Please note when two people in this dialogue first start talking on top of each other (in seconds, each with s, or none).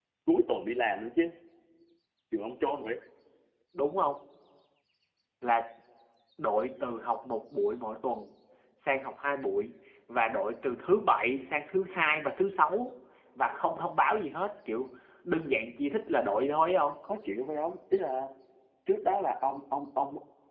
none